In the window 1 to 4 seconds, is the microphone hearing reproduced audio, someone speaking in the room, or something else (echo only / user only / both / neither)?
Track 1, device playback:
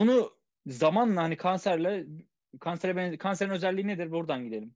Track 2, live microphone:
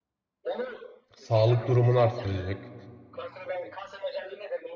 both